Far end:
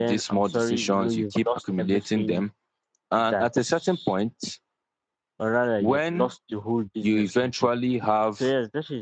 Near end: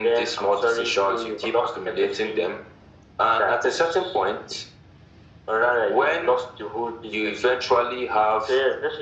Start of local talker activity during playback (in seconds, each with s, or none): none